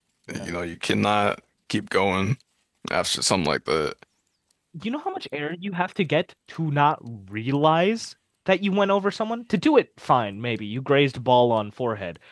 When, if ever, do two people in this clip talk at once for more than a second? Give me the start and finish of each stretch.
none

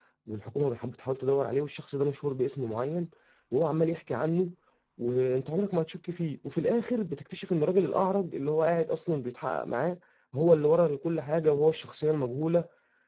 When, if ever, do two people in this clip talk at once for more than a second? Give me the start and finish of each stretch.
none

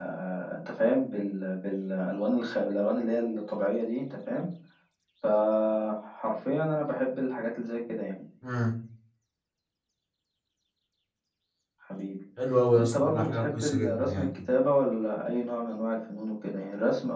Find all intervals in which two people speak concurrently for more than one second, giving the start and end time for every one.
12.8-14.3

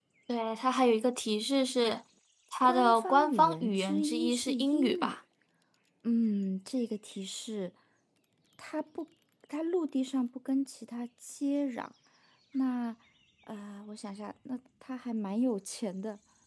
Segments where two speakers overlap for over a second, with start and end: 2.6-5.2

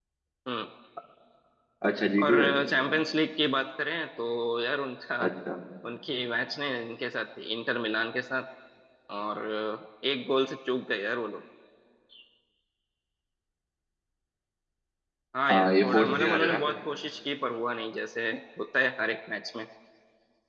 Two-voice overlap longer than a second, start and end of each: 15.5-16.7

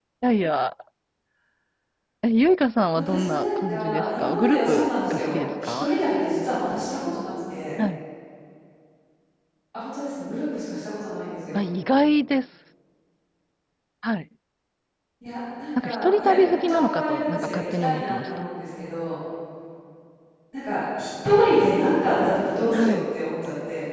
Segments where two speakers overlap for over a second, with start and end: 2.9-5.9, 15.8-18.4

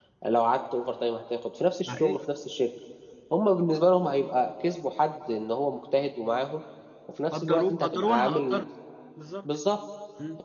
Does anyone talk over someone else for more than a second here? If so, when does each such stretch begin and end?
7.3-8.6

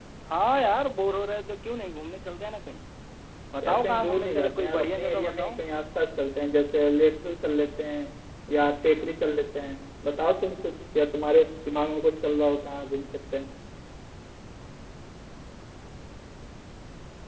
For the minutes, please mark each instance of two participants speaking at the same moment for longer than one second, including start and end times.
3.6-5.6

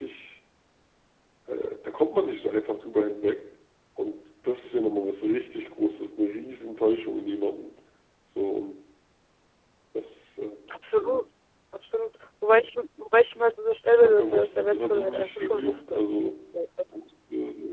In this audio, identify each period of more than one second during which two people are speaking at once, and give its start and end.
13.9-16.0

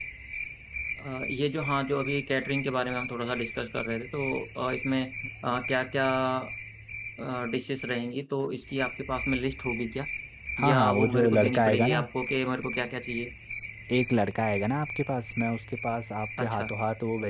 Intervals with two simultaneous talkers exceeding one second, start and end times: 10.6-12.0

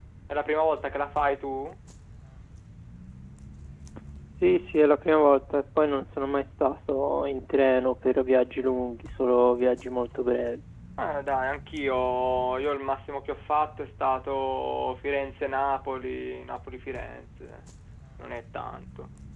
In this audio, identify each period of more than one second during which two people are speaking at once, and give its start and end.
none

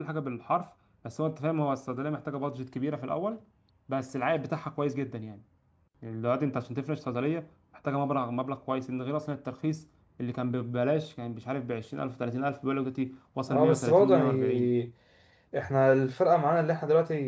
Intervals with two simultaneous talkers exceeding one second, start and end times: 13.5-14.7

